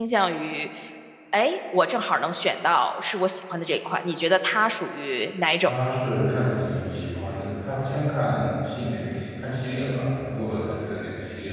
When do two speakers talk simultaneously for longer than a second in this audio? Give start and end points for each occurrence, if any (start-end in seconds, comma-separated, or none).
none